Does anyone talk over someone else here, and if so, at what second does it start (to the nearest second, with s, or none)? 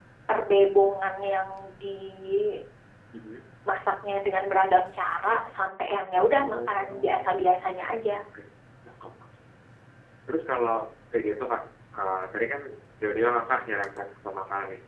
6 s